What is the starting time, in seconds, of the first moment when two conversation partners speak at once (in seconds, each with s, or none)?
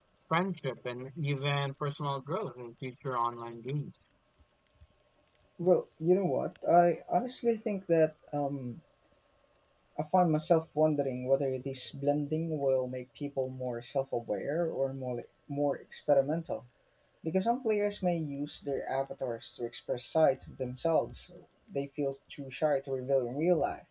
none